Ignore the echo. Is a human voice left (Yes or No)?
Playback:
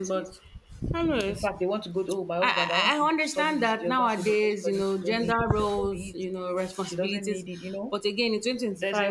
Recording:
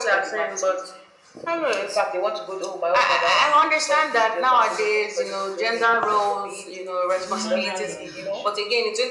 Yes